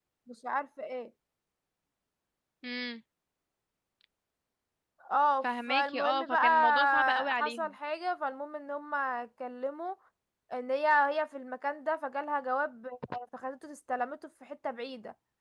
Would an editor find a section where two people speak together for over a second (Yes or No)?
Yes